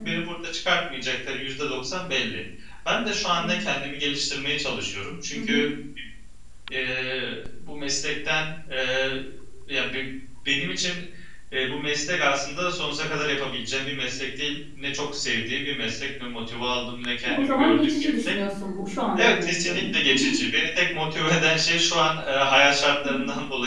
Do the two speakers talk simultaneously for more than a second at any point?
Yes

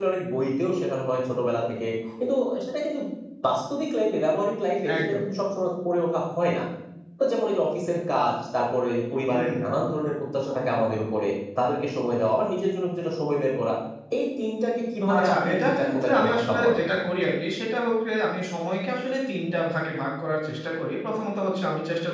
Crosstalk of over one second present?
Yes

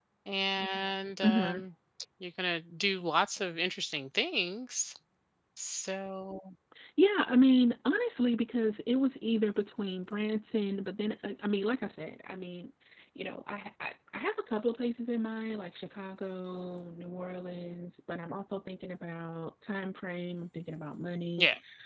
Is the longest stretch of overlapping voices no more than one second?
Yes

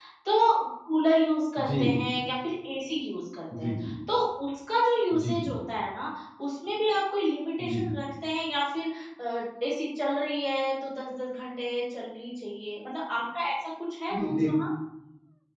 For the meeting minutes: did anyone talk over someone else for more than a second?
No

